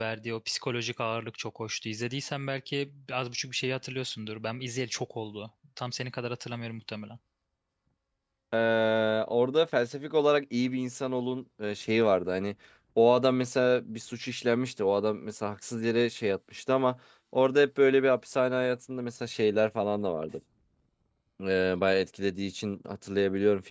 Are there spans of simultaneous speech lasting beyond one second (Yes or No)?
No